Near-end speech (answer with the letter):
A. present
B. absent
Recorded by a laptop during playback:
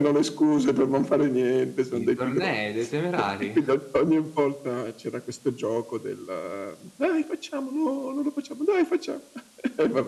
A